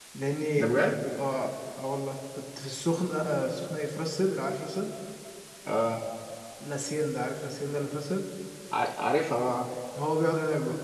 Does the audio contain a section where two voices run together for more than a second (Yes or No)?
No